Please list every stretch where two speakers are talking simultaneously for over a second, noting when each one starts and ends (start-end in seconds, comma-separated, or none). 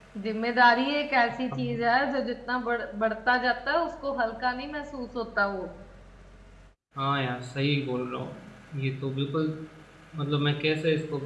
none